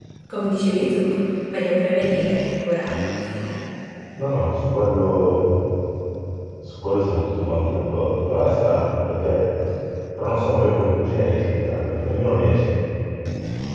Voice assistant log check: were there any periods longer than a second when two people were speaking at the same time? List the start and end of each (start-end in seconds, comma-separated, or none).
none